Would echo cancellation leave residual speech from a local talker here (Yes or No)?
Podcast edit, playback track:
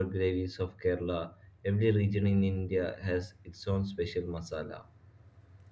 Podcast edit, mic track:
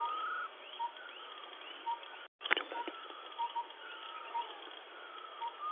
No